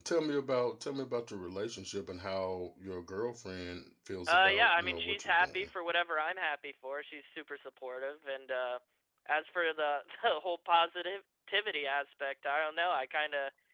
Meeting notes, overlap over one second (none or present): present